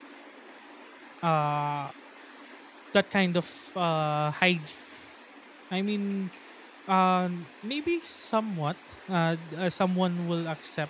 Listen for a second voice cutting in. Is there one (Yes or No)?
No